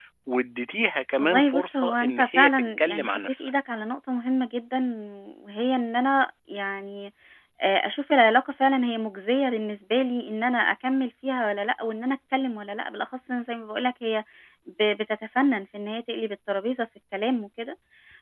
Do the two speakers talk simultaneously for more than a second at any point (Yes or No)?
Yes